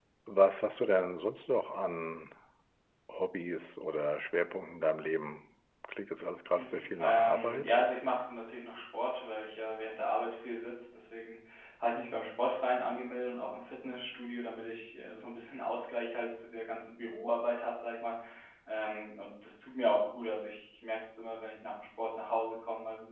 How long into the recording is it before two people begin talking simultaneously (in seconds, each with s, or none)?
6.5 s